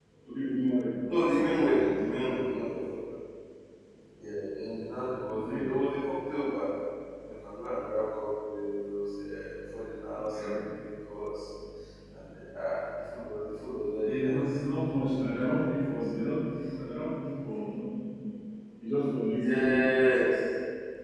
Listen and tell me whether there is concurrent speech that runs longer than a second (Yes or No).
Yes